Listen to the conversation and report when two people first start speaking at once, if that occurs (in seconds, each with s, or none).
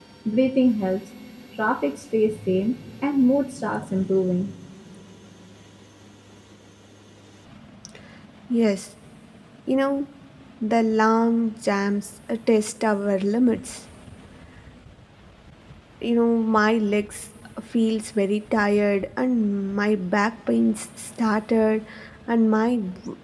none